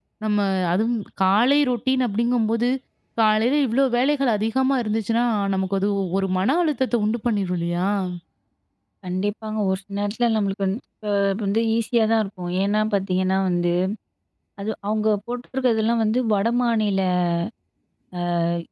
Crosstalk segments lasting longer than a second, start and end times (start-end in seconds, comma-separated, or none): none